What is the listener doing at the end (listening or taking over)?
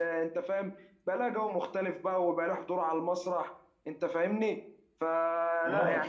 listening